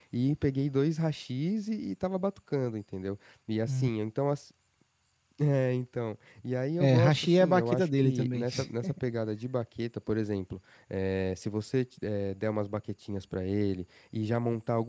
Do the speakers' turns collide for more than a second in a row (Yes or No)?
Yes